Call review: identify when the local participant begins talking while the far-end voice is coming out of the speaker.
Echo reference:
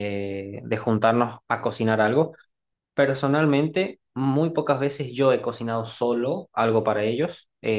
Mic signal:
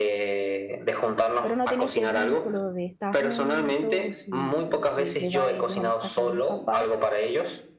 1.4 s

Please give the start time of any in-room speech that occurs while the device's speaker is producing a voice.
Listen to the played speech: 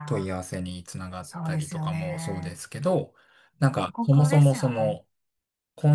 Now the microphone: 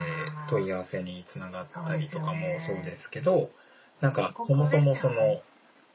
none

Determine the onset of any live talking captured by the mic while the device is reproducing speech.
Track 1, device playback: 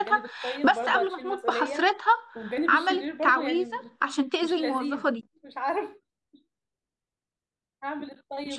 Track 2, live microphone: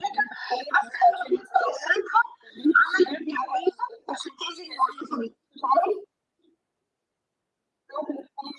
none

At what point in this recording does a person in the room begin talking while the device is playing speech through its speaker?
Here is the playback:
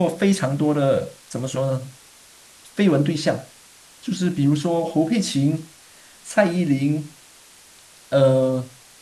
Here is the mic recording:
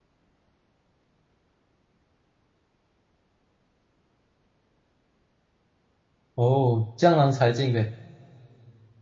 6.3 s

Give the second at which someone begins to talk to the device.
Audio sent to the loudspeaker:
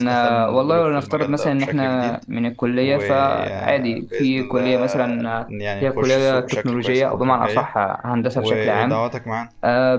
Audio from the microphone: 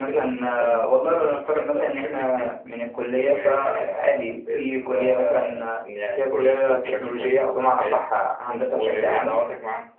none

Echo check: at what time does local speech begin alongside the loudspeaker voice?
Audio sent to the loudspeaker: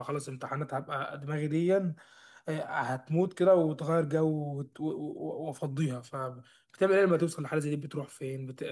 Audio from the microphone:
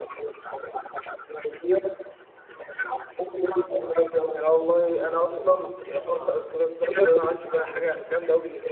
4.4 s

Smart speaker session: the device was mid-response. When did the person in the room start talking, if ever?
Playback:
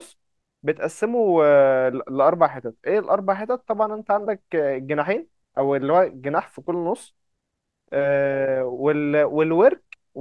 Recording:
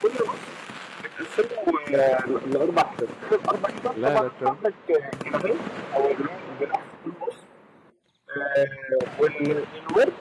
3.9 s

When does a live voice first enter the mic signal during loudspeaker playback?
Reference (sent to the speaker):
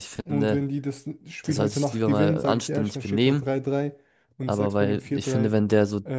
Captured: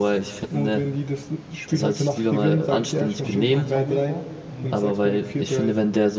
3.2 s

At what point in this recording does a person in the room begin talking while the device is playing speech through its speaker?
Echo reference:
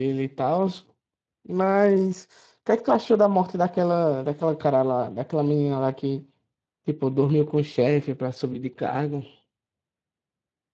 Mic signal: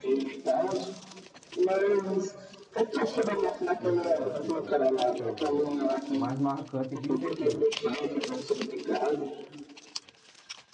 3.8 s

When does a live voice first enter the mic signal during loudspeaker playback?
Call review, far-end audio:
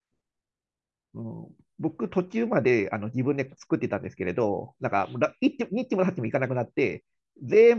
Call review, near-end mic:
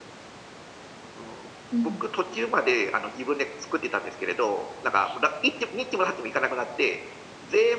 1.7 s

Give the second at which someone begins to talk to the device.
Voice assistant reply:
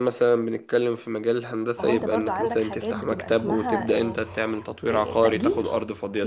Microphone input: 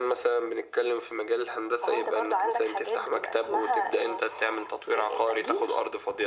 none

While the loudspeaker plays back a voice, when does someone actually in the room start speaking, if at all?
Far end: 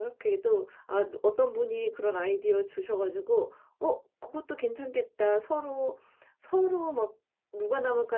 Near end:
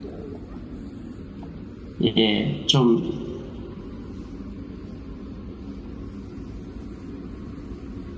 2.0 s

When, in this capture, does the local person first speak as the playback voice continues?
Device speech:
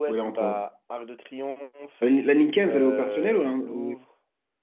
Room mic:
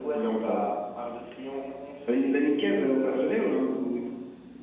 none

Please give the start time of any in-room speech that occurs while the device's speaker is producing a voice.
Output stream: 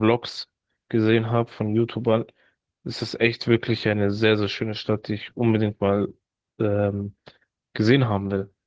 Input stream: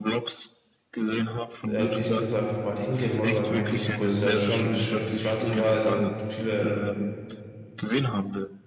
1.6 s

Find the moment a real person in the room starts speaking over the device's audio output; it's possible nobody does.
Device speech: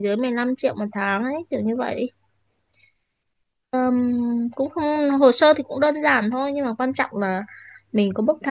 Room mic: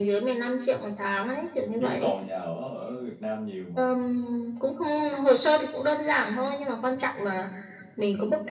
1.8 s

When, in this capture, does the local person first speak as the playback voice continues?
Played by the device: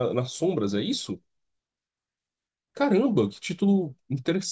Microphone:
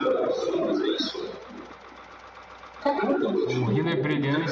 3.4 s

